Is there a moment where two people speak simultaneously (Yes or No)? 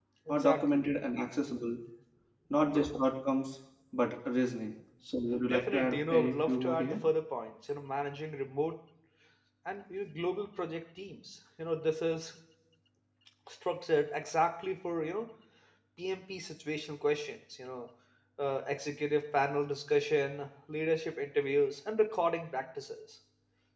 Yes